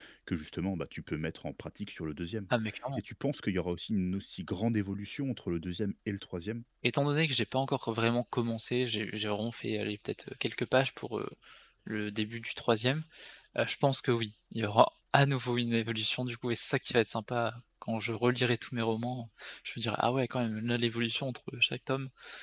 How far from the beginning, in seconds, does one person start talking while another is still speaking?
none

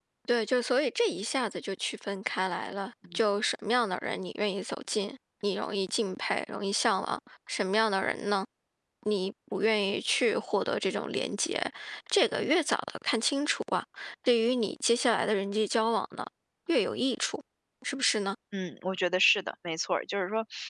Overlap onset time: none

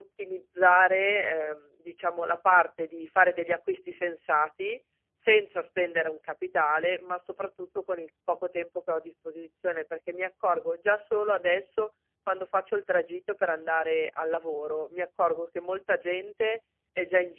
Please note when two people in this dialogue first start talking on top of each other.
none

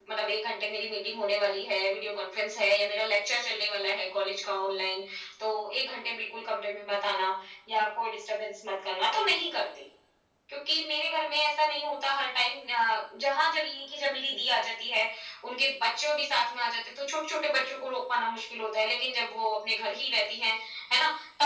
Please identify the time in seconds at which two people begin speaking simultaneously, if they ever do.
none

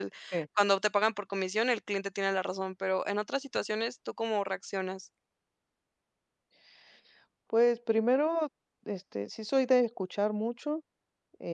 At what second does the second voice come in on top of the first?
none

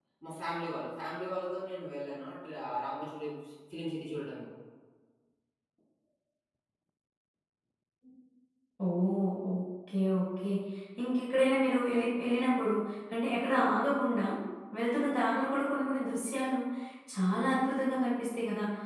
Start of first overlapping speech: none

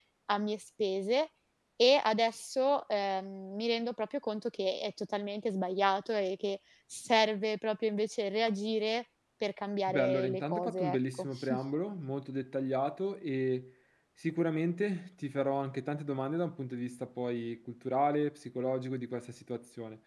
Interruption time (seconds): 9.9 s

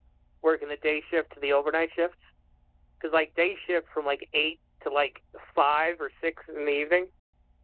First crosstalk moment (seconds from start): none

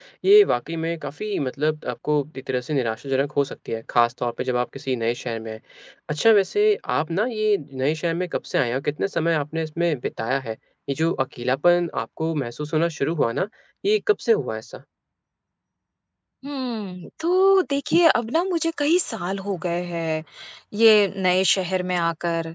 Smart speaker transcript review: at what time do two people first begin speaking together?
none

